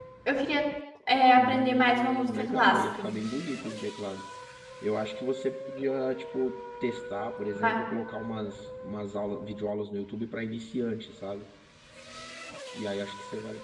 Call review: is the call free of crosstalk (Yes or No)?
No